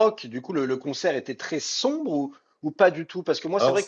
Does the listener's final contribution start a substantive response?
No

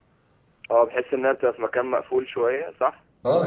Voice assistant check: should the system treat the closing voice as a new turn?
Yes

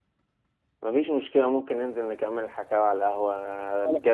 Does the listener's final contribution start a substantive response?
No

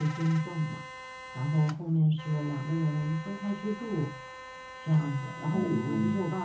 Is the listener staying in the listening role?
Yes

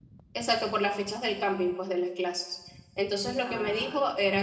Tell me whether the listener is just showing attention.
Yes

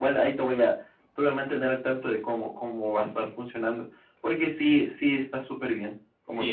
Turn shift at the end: Yes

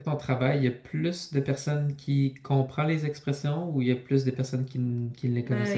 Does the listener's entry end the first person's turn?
Yes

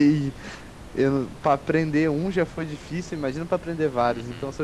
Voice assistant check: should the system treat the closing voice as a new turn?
Yes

